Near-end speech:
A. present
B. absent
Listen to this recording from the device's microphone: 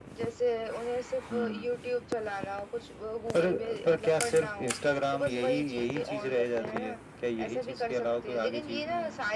B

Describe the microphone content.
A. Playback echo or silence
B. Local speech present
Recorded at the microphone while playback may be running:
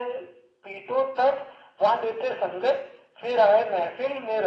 A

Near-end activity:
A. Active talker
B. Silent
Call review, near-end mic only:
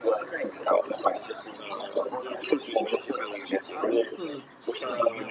A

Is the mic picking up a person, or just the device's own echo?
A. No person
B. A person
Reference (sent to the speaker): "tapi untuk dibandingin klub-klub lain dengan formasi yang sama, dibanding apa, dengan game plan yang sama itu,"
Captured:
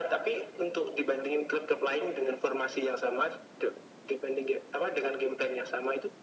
A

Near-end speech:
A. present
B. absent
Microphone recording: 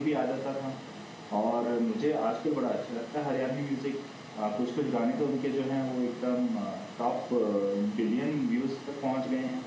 B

